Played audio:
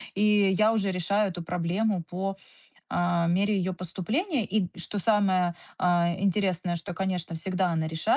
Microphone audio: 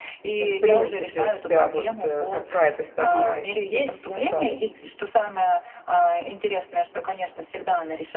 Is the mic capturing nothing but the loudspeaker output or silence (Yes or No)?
No